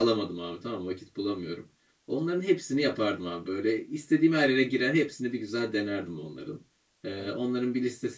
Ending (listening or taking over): listening